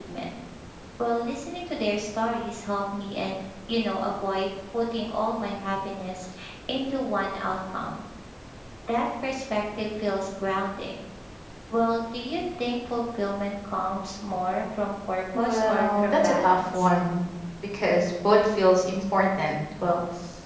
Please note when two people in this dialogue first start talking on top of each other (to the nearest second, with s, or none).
15 s